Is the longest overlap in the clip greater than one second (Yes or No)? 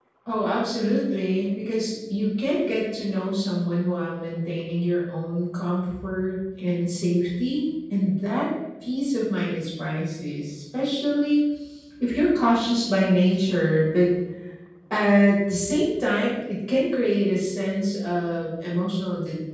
No